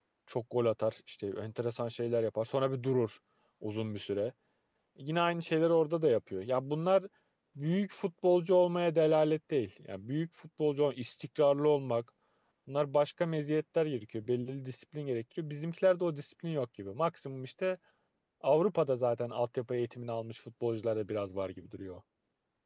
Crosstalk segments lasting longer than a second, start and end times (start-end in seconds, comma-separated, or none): none